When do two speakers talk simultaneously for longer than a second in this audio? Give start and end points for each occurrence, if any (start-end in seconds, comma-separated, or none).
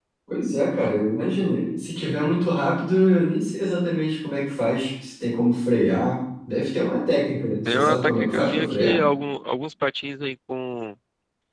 7.7-9.0